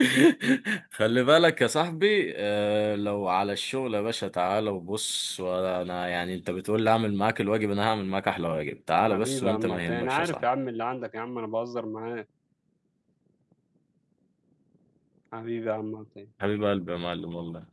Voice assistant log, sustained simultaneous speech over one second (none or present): present